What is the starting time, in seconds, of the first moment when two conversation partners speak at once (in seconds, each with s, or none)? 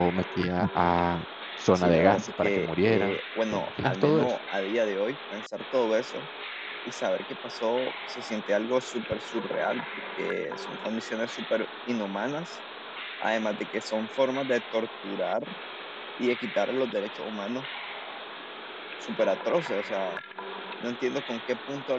1.8 s